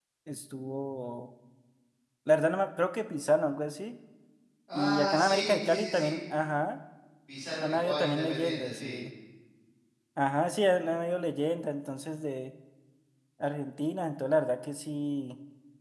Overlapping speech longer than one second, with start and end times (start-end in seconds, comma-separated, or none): 4.7-6.1, 7.6-9.0